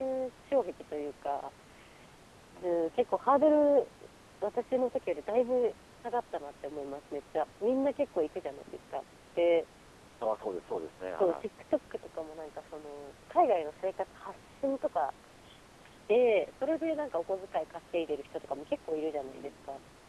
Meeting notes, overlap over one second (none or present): none